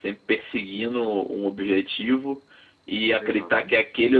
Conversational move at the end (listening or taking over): listening